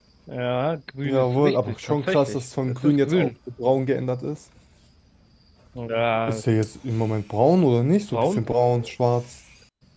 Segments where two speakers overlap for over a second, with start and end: 1.1-3.3

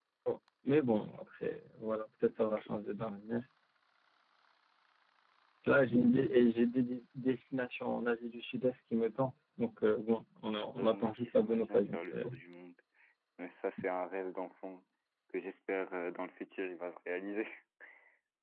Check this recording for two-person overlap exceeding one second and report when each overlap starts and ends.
10.6-12.3

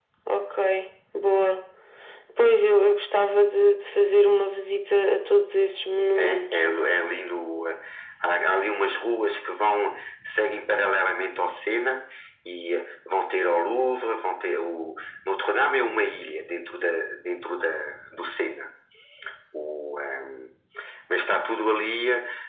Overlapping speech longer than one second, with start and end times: none

